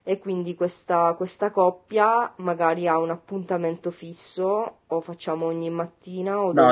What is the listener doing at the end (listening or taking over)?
taking over